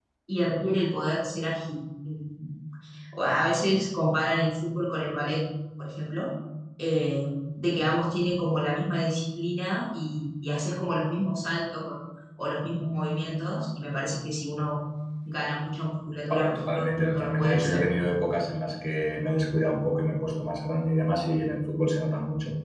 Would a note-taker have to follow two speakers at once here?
Yes, from 16.3 s

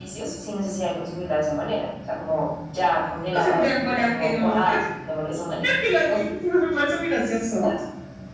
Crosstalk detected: Yes, from 3.2 s

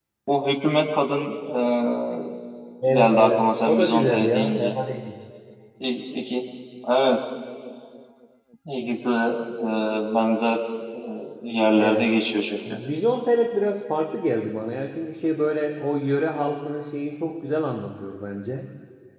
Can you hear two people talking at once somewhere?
Yes, from 2.9 s

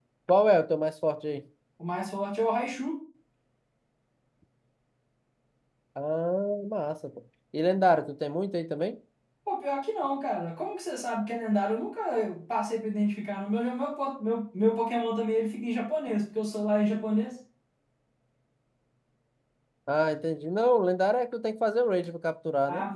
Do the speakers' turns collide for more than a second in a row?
No

